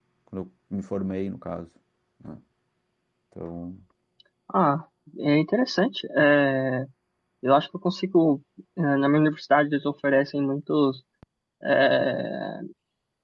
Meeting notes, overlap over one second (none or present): none